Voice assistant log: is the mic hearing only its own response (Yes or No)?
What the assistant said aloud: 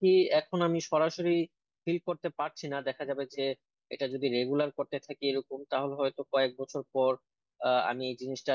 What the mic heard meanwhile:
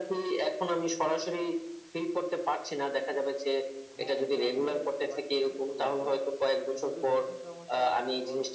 No